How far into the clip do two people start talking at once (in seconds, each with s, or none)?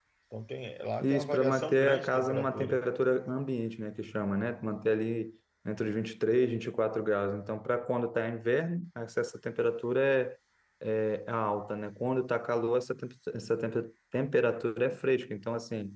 1.0 s